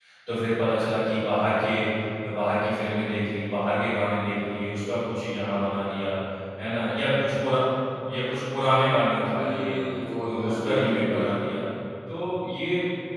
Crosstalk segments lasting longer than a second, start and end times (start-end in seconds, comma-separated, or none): 10.2-11.5